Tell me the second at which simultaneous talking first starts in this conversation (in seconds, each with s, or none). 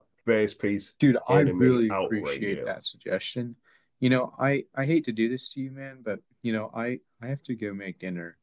1.3 s